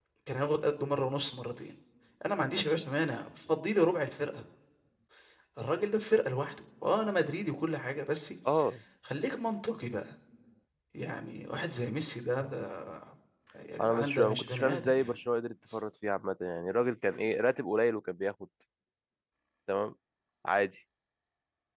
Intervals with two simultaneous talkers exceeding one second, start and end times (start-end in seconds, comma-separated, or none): 13.8-15.2